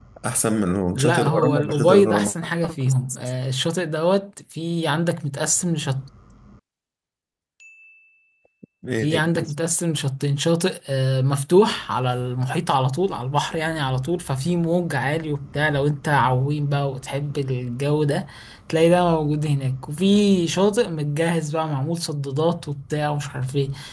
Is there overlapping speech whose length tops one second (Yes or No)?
Yes